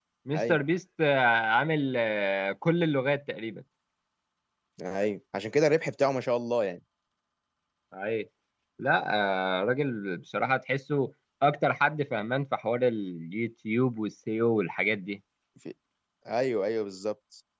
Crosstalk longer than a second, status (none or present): none